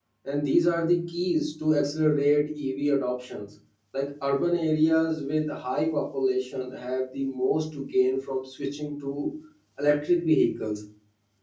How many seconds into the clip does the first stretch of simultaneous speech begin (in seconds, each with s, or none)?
none